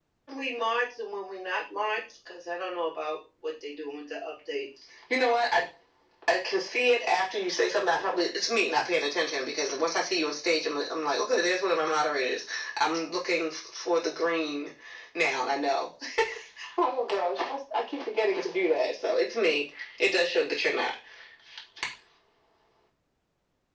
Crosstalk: none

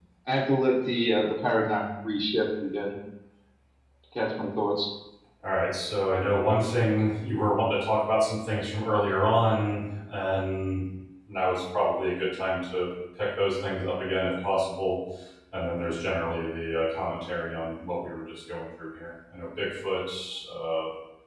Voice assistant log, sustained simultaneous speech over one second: none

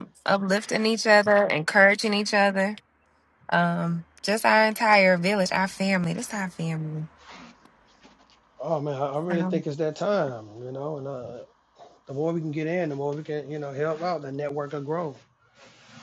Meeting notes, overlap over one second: none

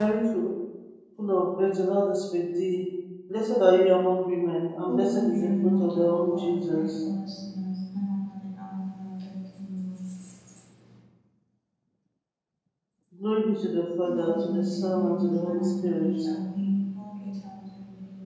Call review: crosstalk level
present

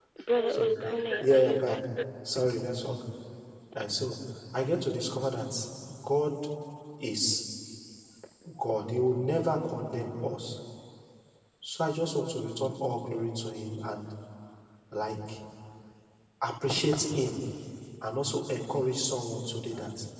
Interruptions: present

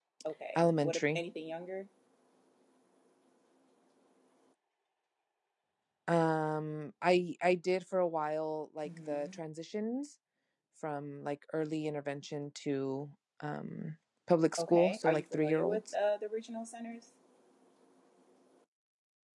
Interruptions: present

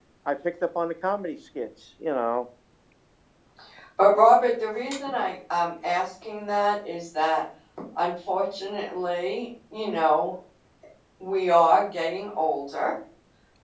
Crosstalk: none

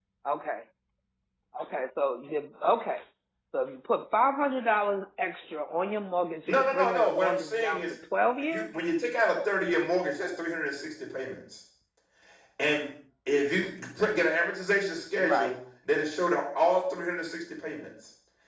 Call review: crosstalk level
present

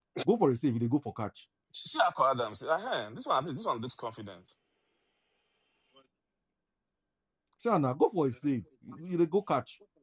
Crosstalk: none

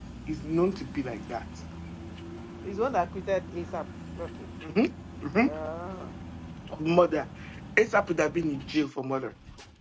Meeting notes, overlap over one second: none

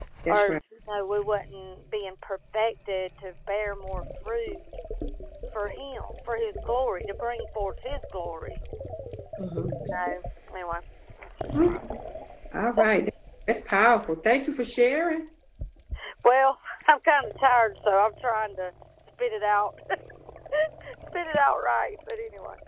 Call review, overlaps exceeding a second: none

